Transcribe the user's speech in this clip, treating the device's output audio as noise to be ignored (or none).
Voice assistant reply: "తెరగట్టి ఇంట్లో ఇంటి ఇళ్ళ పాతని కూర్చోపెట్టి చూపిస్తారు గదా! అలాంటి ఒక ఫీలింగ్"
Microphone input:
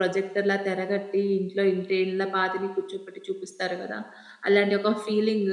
none